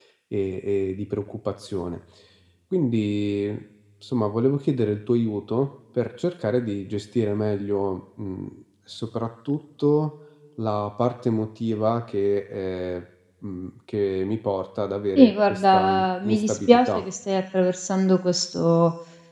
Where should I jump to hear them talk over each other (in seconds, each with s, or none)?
15.2 s